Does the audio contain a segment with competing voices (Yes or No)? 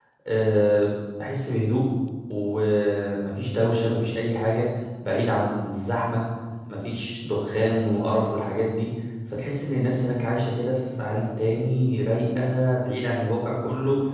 No